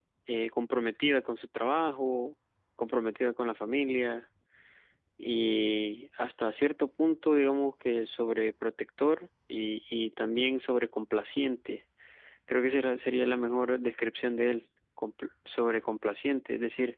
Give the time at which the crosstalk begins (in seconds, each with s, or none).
none